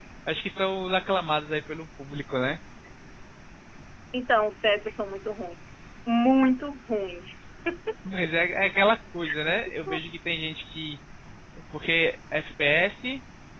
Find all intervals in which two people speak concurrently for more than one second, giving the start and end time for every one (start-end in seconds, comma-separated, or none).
none